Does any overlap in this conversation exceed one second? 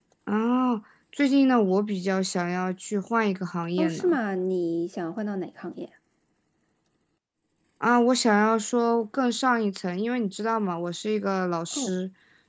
No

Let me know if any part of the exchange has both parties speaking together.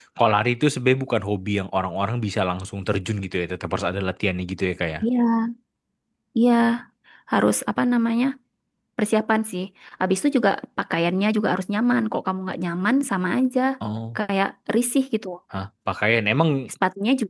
No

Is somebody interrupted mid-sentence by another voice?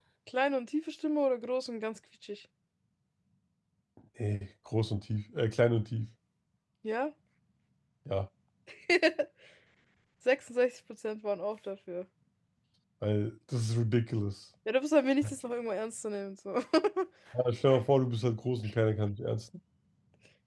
No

